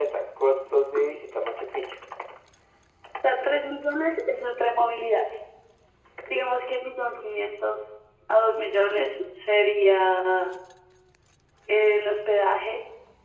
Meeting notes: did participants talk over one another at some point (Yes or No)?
No